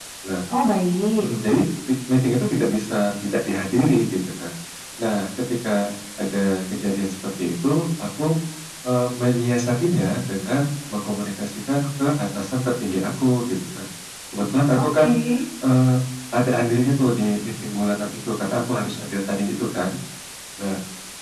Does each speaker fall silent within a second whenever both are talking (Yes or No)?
Yes